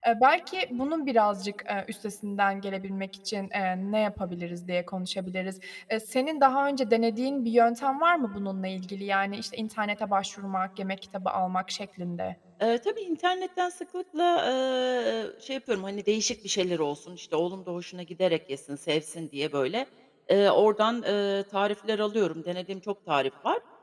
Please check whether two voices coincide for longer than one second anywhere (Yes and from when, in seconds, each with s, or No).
No